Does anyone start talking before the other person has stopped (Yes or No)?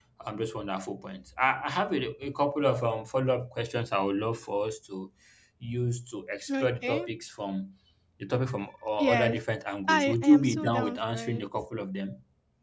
Yes